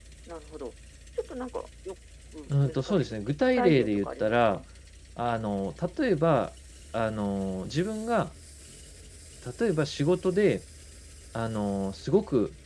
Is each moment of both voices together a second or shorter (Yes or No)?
No